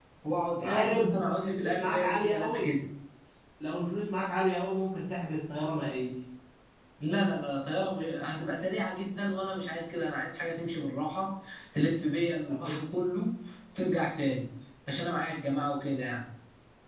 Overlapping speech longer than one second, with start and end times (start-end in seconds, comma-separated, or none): 0.6-2.8